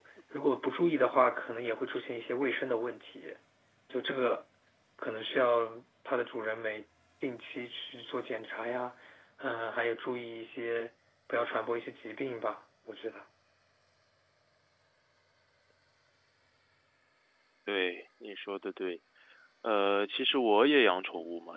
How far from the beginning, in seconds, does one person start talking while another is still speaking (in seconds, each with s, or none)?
none